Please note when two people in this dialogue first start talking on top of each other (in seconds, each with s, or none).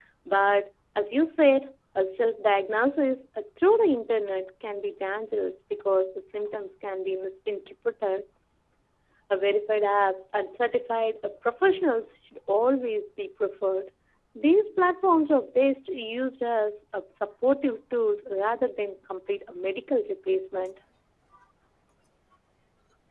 none